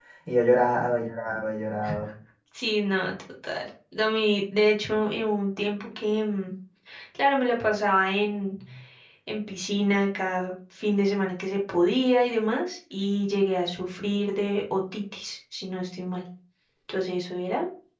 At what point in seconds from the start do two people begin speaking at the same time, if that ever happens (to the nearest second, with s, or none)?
none